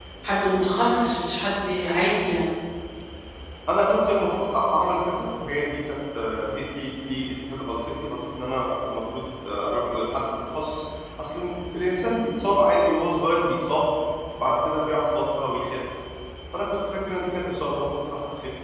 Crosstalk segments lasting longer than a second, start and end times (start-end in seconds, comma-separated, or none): none